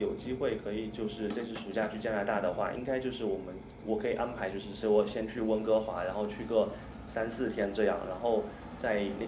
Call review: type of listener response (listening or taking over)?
listening